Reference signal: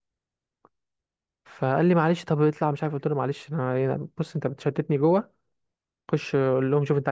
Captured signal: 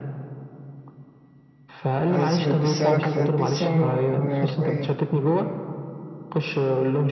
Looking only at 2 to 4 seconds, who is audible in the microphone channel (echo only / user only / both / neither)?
both